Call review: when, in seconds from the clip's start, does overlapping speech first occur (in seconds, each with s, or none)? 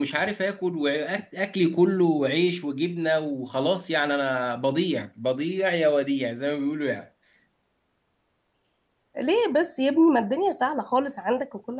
none